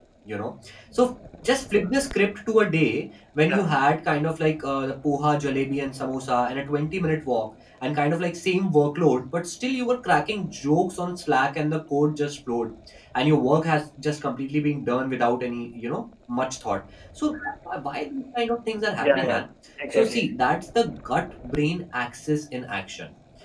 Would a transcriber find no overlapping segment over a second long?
Yes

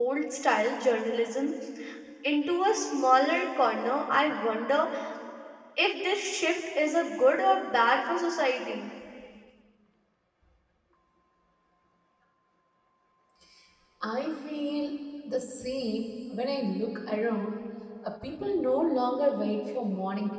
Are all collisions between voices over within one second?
Yes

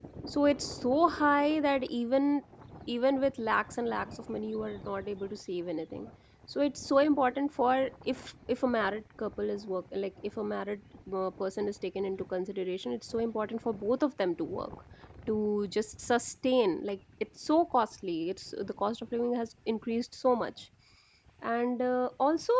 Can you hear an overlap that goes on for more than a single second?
No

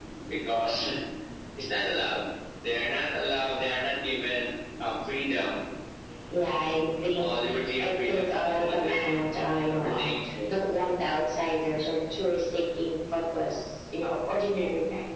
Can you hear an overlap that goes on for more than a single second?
Yes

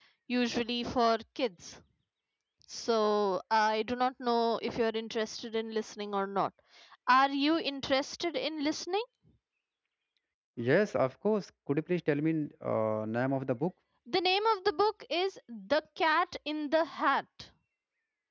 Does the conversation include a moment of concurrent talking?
No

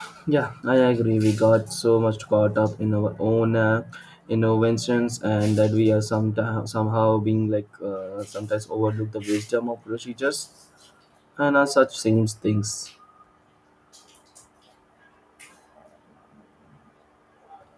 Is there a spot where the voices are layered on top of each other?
No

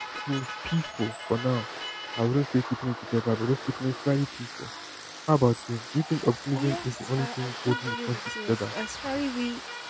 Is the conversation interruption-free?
No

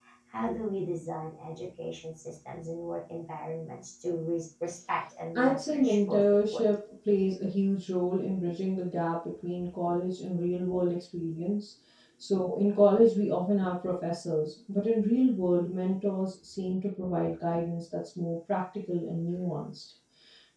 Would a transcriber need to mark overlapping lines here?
Yes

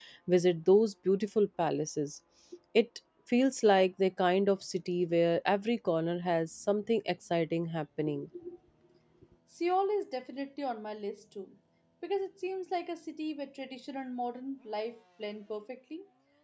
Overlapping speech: No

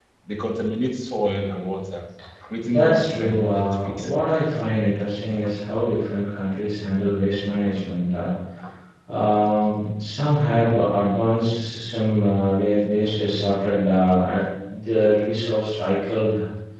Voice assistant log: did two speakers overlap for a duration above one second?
Yes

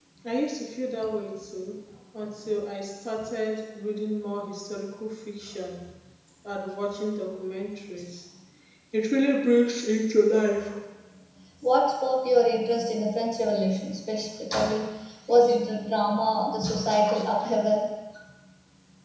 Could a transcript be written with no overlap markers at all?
Yes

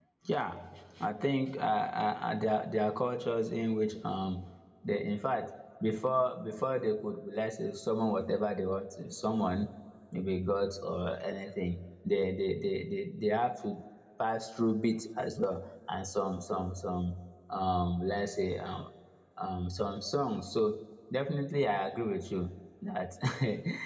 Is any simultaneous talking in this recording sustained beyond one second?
No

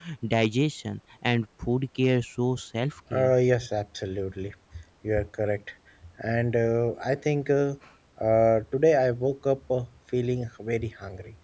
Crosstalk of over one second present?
No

